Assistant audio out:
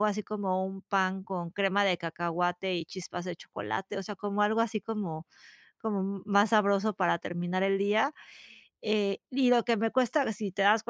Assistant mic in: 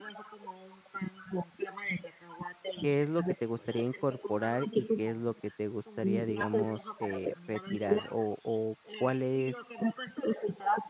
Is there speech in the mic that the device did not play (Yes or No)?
Yes